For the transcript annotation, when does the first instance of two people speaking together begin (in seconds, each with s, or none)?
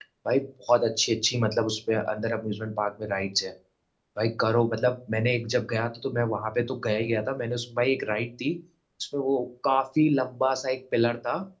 none